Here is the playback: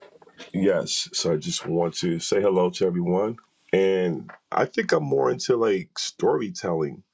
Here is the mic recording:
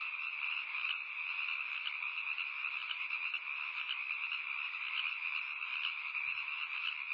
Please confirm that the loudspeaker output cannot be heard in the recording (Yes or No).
Yes